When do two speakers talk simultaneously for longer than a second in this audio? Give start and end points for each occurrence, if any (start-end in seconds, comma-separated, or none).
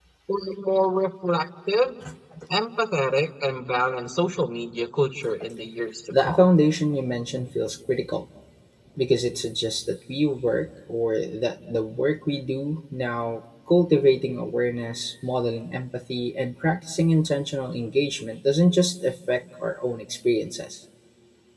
none